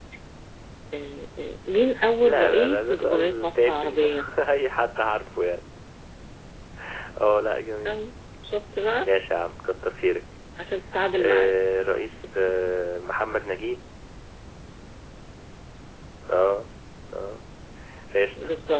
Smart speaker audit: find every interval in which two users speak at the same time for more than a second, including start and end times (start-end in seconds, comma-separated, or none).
2.2-4.1